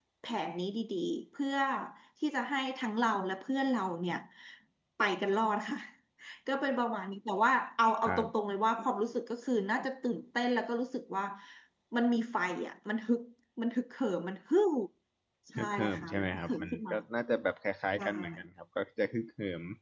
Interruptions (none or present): present